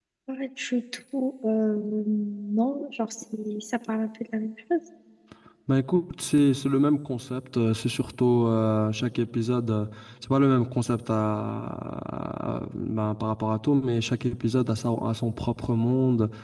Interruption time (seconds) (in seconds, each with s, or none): none